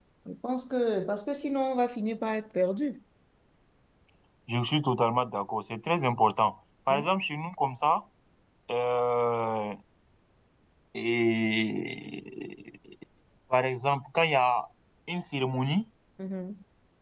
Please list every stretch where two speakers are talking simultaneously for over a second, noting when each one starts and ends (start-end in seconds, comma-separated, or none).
none